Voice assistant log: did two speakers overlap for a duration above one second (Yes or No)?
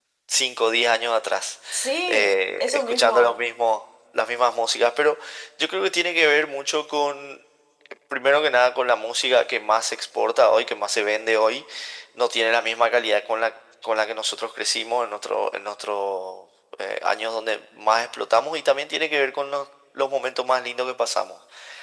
Yes